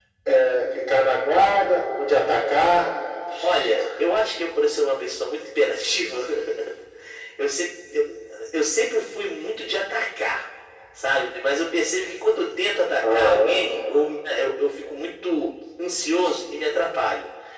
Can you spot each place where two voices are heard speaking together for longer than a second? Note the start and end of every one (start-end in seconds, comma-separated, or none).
none